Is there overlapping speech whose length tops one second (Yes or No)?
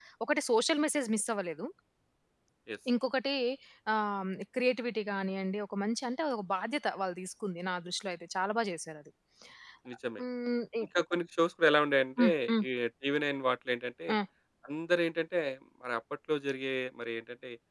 No